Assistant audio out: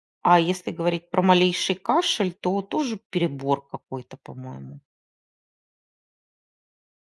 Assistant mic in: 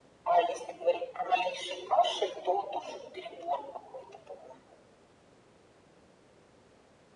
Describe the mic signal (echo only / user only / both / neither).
echo only